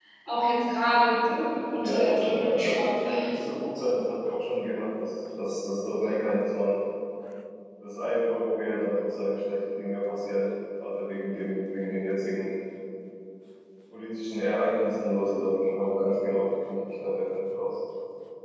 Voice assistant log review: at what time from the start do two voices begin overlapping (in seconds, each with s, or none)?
1.8 s